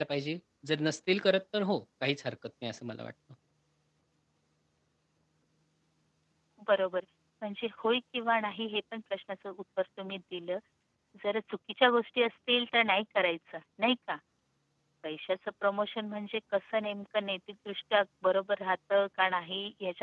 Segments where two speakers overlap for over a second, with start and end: none

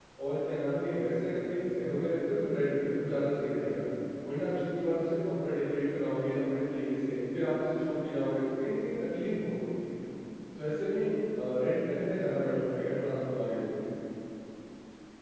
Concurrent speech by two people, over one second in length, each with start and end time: none

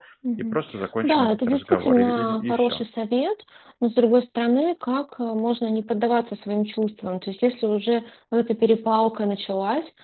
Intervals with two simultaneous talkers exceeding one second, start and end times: 1.0-2.8

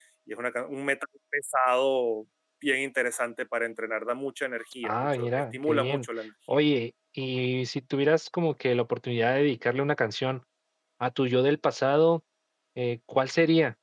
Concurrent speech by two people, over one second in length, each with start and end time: 4.8-6.1

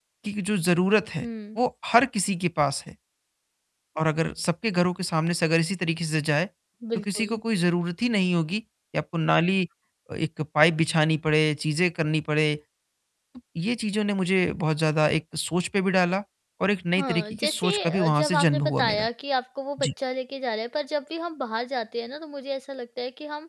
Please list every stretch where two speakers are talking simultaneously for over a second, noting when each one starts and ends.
17.0-19.1

